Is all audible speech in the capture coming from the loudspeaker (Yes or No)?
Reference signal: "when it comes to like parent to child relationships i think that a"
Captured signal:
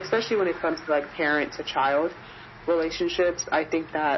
Yes